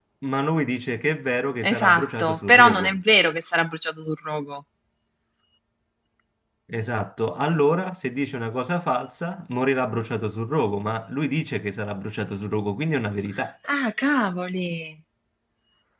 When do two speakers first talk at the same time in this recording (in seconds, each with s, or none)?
1.6 s